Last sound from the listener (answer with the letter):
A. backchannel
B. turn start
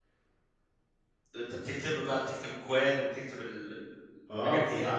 B